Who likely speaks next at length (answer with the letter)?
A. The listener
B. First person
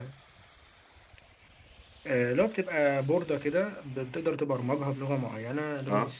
B